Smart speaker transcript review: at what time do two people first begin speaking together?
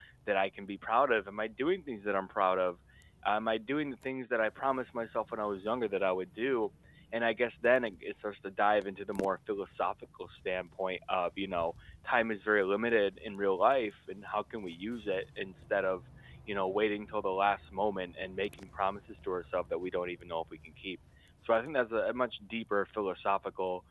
none

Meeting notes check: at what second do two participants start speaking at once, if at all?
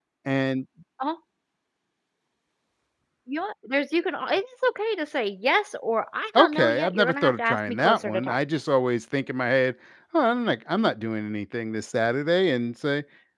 6.3 s

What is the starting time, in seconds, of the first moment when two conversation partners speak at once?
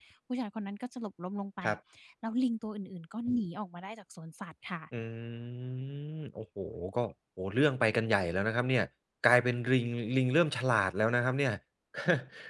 none

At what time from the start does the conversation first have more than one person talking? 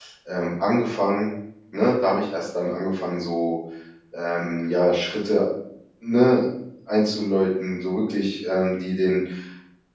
none

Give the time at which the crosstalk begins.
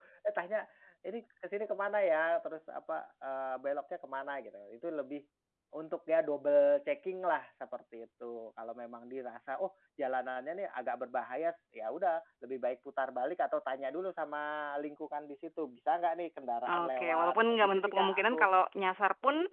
16.7 s

